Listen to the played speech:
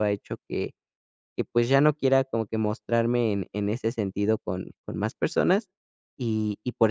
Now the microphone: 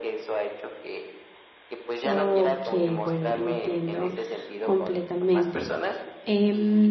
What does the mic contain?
both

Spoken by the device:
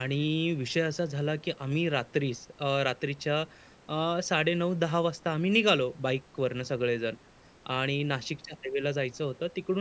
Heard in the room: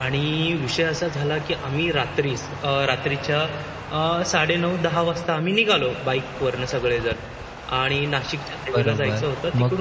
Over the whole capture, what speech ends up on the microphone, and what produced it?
both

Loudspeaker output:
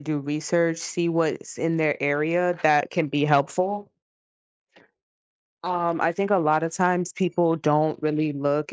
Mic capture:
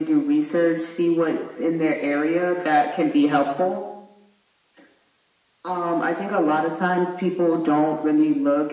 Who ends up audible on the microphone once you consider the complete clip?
echo only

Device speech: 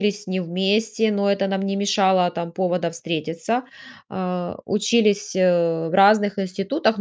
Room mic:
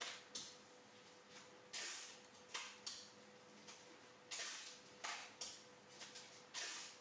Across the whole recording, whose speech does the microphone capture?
neither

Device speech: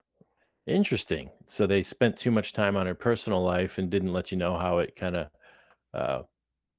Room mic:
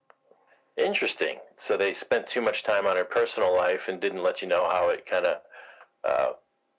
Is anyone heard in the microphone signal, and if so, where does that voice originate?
echo only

